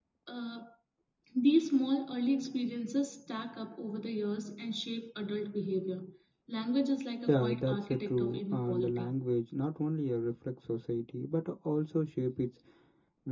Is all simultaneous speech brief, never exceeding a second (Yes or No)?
No